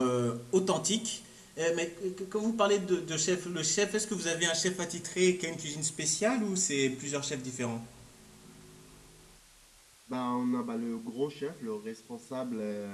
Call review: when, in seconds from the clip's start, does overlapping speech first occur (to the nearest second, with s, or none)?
none